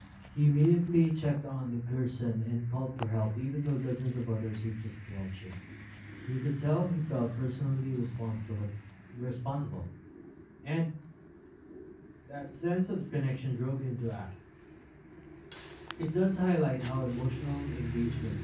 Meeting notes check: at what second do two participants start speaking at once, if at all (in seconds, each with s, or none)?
none